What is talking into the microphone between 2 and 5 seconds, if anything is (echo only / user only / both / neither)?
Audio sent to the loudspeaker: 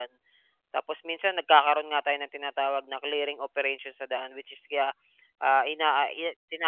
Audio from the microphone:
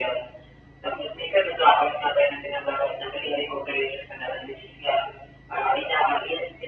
echo only